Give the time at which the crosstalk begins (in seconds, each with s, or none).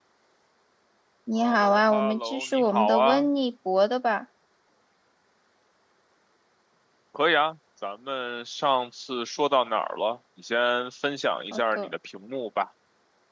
1.4 s